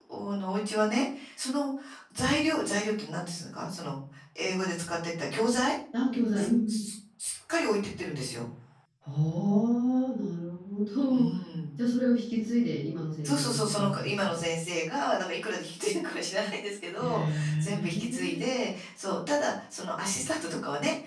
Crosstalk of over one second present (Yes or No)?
Yes